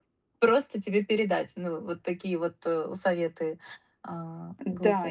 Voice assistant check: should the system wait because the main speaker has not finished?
No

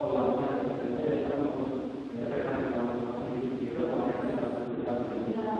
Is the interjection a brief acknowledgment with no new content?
No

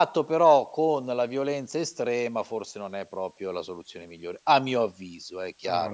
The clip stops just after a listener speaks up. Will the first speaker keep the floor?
No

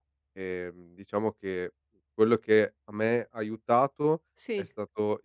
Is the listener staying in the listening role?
Yes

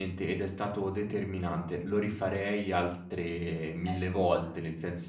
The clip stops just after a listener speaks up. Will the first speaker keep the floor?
Yes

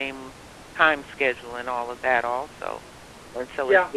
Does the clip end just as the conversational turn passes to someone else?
No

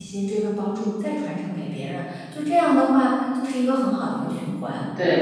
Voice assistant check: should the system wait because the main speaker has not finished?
No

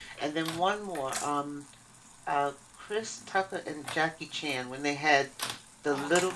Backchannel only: Yes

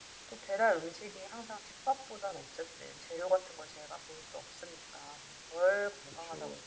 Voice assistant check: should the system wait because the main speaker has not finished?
Yes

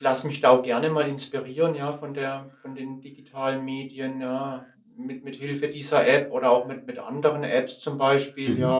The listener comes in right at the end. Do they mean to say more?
No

